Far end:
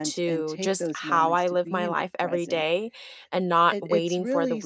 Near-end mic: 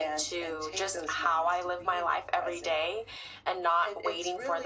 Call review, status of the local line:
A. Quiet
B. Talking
A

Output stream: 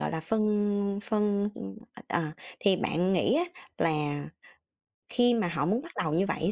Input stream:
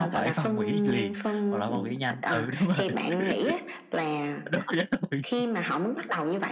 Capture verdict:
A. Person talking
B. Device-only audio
A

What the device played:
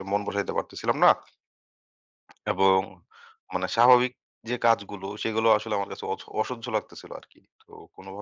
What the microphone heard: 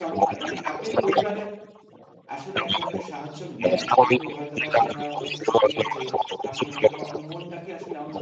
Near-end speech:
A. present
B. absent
A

